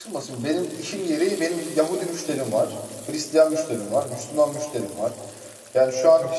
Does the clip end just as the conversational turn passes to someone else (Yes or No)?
No